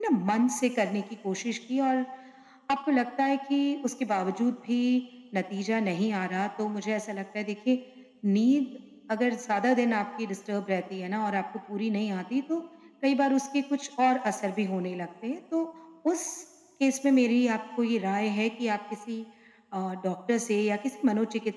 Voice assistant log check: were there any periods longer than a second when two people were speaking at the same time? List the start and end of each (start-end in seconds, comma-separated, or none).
none